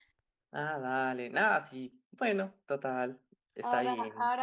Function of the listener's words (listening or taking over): taking over